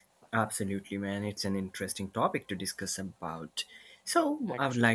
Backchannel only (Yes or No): Yes